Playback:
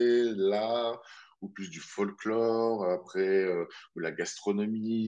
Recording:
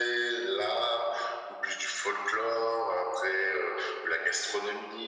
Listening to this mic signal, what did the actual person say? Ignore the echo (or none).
none